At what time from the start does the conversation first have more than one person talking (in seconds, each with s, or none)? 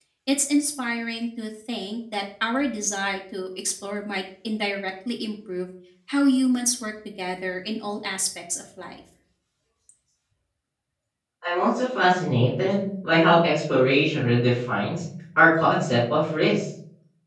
none